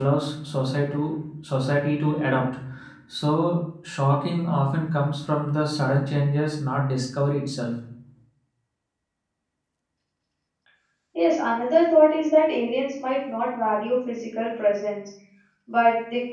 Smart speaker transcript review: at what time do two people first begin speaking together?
none

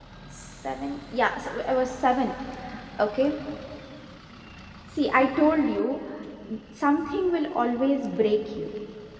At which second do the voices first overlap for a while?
none

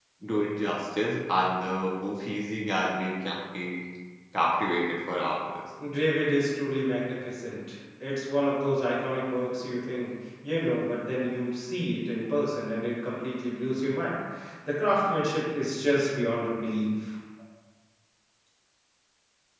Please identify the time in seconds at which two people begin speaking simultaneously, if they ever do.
none

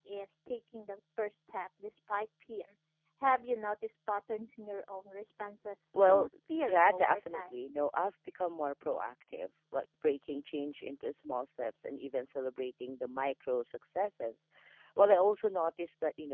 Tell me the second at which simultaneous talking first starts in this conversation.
5.9 s

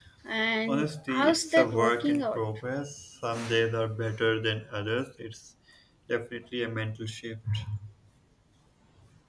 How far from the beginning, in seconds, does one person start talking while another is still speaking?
0.7 s

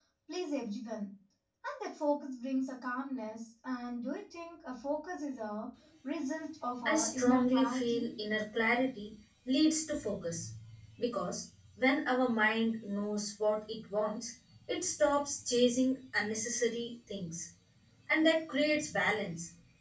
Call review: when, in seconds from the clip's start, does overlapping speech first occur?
6.8 s

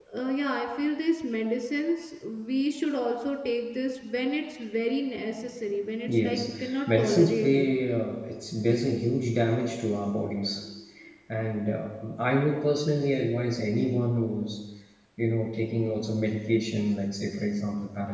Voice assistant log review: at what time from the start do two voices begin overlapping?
6.1 s

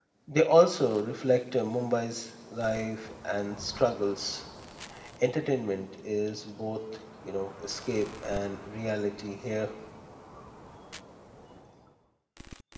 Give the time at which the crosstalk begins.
none

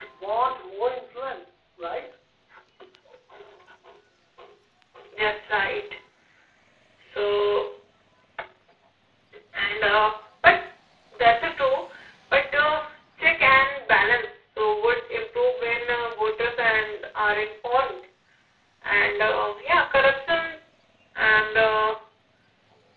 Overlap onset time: none

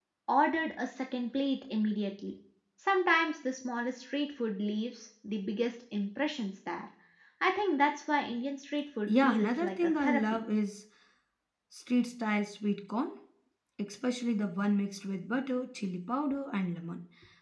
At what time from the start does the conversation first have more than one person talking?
9.1 s

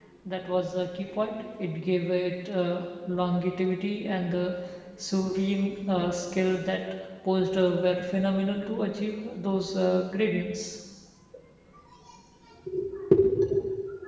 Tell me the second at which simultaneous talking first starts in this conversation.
none

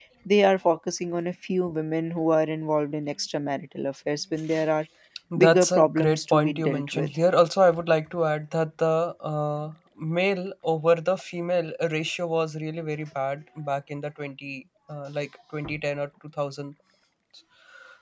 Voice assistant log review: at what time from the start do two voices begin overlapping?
5.4 s

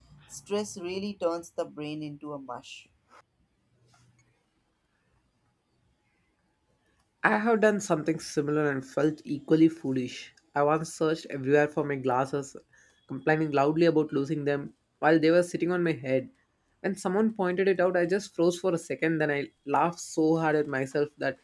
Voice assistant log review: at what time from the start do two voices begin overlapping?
none

